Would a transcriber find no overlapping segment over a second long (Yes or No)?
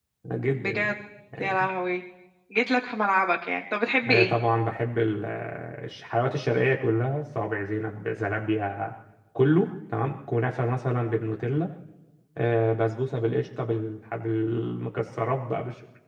Yes